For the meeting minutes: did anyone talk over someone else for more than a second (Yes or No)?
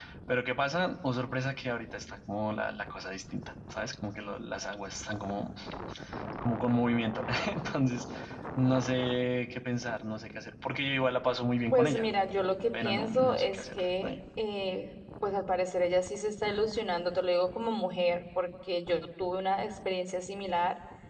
Yes